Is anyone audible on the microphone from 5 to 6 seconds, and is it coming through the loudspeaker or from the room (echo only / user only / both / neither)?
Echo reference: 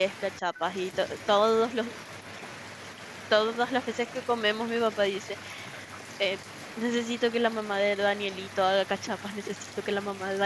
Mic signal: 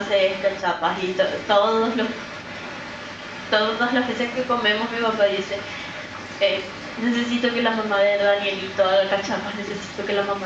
echo only